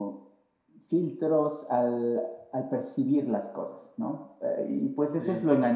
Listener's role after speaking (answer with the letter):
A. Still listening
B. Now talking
A